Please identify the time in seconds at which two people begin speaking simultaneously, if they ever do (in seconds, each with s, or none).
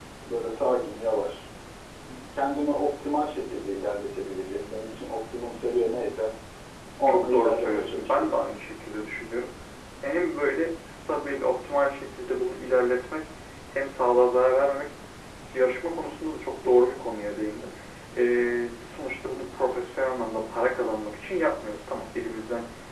7.1 s